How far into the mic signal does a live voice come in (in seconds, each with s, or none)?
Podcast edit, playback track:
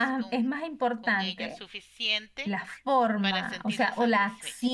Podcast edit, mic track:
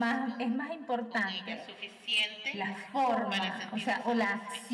none